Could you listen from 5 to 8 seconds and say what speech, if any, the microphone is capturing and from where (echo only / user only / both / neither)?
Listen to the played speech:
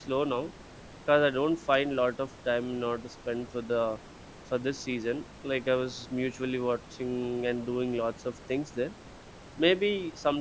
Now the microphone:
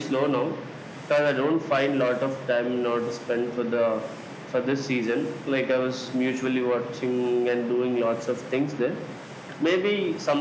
echo only